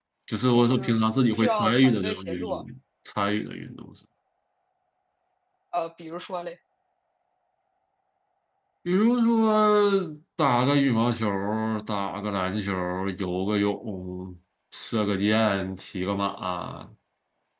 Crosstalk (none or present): present